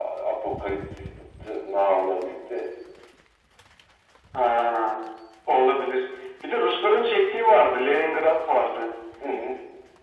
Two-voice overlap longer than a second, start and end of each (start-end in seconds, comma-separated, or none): none